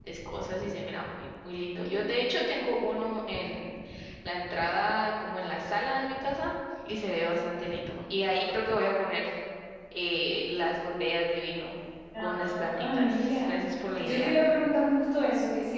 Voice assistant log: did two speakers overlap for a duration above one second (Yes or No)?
Yes